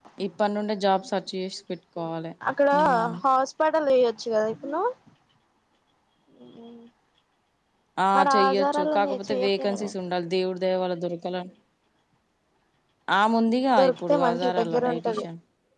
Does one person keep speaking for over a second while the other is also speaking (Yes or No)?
Yes